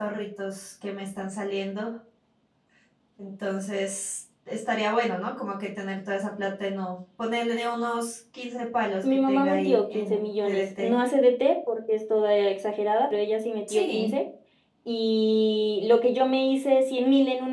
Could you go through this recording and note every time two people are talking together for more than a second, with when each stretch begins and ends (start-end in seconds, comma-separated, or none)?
9.0-11.0